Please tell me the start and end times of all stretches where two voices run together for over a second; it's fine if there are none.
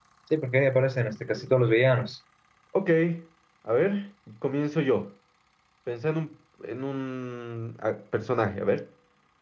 none

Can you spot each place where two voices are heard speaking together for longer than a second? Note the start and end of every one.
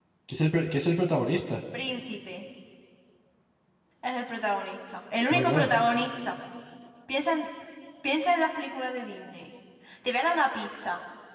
none

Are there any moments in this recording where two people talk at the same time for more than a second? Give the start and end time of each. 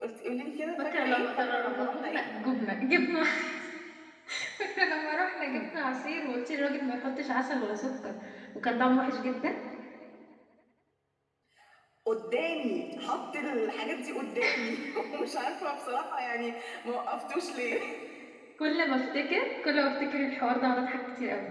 0.8-2.2

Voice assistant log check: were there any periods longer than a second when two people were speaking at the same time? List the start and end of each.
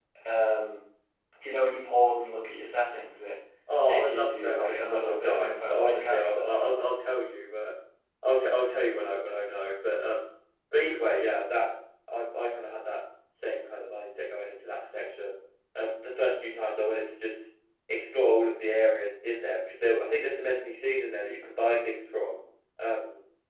3.9-6.5

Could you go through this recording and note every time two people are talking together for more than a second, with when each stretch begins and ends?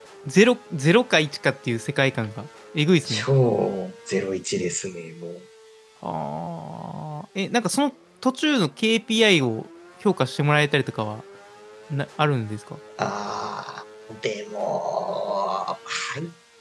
none

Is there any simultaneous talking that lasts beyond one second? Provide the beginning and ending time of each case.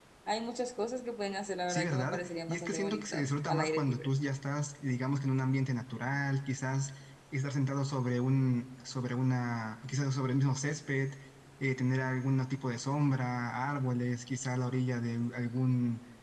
1.7-4.1

